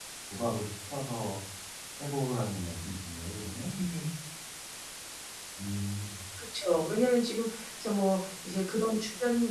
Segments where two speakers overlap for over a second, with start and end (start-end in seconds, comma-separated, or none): none